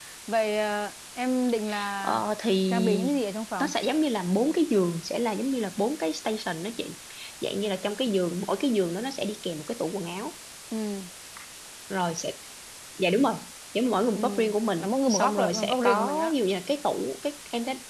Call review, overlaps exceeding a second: present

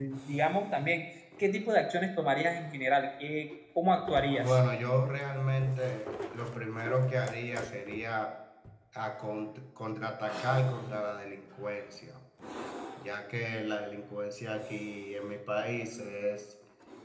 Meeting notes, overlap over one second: none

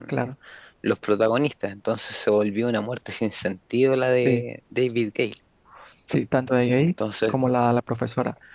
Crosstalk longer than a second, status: none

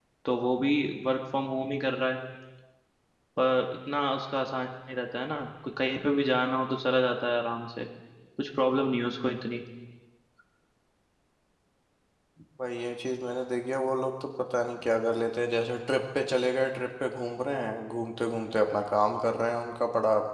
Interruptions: none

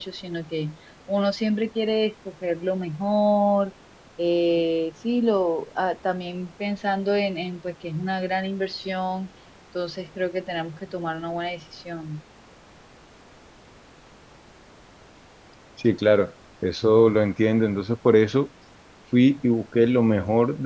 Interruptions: none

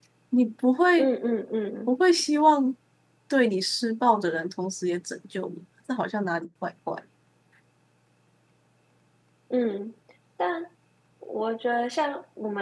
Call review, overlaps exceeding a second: none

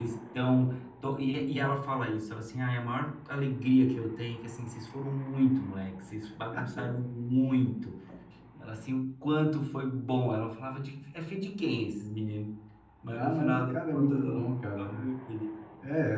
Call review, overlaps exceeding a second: present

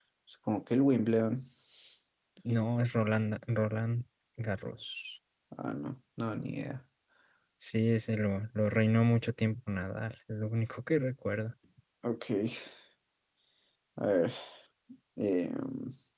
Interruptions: none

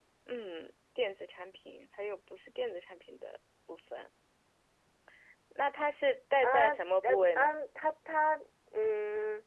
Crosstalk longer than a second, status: present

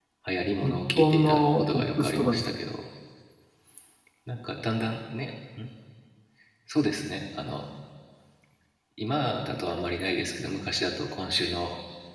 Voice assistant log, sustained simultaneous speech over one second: present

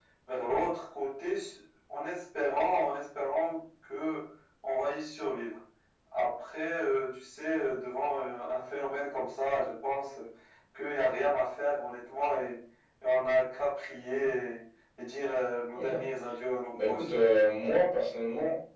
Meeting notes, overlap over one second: none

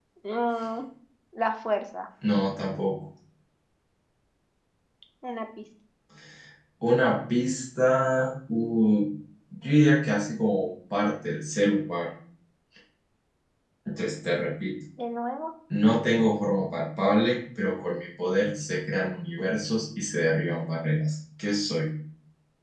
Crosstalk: none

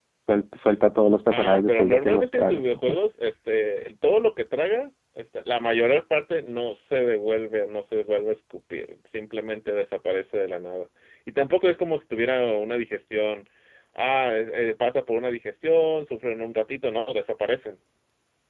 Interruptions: present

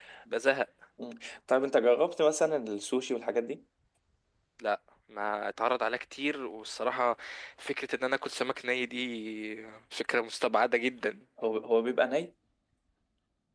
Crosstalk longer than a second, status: none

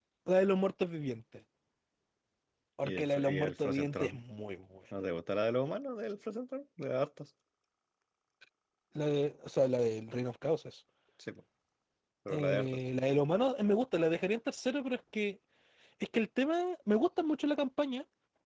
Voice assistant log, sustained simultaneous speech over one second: present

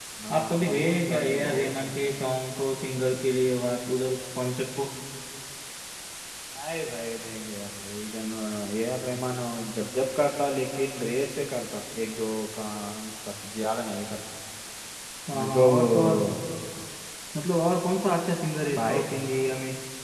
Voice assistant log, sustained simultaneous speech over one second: present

